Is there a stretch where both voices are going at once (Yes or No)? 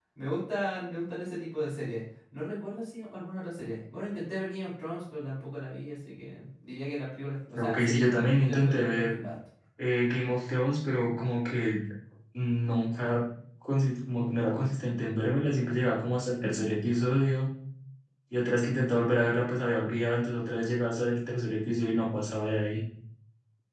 Yes